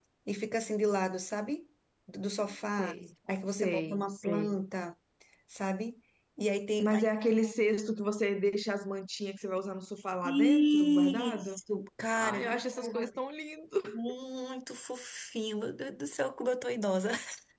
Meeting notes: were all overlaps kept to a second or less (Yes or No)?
No